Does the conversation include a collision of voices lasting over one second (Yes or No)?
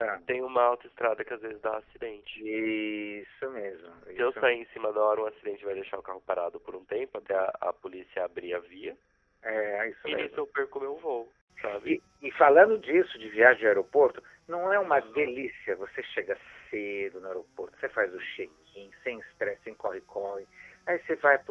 No